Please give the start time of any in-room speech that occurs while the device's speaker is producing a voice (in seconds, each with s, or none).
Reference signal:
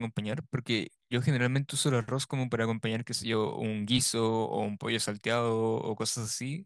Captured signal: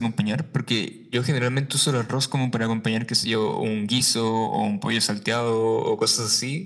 none